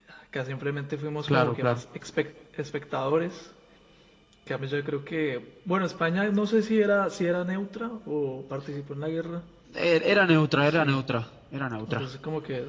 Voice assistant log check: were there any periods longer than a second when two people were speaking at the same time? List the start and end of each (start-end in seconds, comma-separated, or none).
none